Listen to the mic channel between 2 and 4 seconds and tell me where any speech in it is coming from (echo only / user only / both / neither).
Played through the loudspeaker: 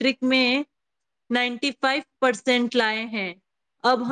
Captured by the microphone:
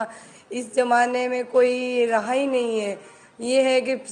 user only